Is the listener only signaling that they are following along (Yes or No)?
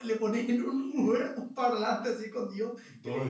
No